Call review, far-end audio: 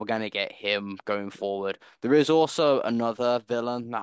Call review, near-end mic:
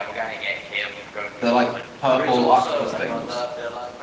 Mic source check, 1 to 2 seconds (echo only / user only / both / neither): both